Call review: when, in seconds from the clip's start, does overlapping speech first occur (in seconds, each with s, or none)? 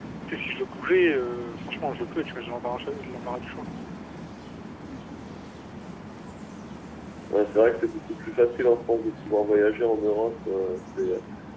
none